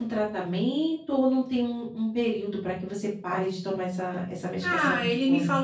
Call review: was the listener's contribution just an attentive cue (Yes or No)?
No